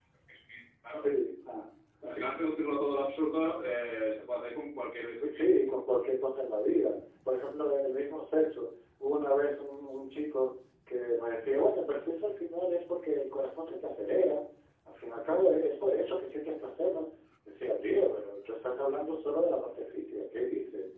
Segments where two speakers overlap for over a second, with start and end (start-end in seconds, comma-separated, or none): none